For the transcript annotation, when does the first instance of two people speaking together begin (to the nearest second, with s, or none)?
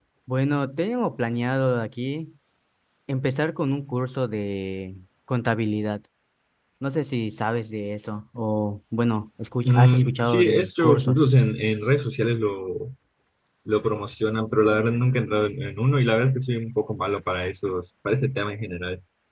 10 s